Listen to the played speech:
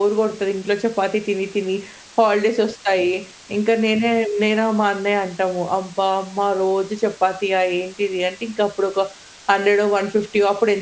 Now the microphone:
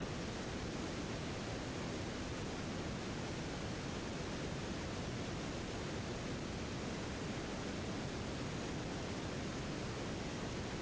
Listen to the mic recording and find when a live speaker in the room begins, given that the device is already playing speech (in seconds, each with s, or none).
none